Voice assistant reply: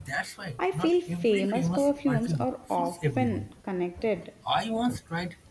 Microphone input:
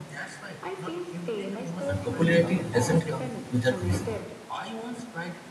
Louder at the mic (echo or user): user